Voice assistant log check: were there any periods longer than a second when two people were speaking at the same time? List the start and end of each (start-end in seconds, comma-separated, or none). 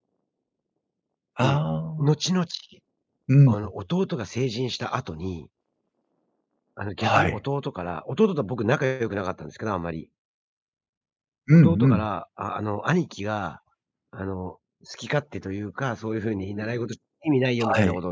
none